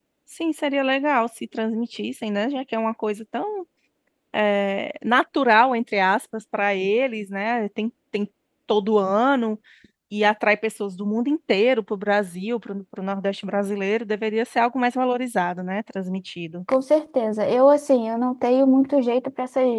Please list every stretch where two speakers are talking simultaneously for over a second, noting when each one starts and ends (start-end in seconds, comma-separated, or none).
none